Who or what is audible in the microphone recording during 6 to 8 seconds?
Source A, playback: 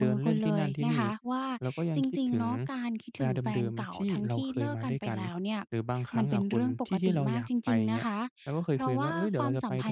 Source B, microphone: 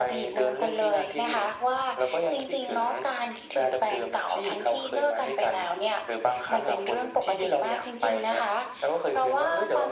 echo only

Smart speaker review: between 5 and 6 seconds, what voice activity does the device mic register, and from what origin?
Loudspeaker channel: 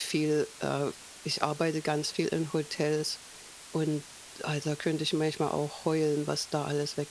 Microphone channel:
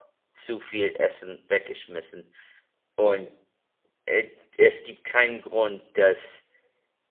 user only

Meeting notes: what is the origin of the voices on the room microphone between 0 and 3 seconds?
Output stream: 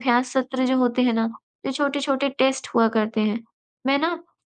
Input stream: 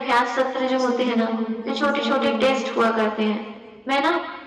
both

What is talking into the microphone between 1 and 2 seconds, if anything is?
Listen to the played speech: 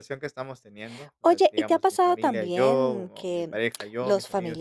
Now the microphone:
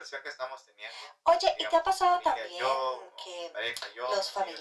echo only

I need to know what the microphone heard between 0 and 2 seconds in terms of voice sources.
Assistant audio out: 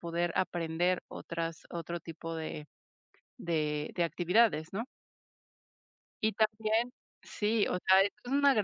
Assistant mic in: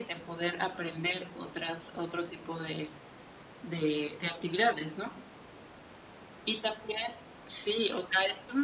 echo only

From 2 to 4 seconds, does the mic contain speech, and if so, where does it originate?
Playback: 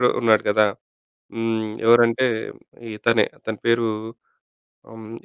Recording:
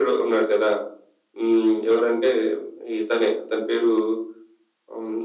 echo only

